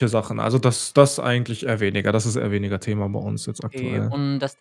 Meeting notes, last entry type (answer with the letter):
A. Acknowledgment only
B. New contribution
B